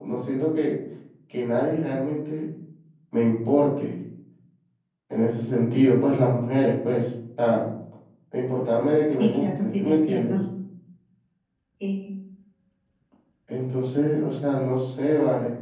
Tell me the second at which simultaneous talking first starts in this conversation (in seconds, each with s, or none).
9.1 s